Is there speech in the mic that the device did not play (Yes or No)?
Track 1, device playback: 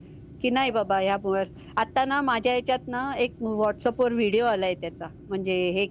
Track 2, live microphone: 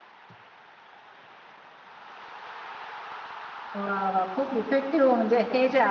Yes